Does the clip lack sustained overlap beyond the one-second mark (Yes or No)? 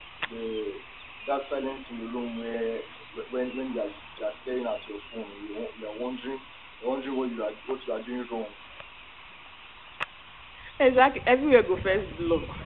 Yes